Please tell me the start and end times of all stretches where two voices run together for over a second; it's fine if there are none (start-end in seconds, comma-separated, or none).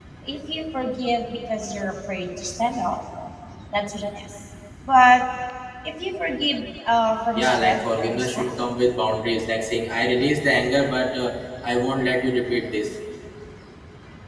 7.3-8.7